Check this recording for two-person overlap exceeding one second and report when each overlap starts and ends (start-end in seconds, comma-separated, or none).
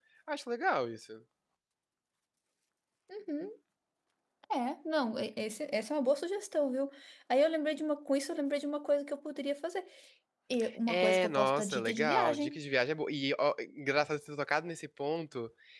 10.9-12.6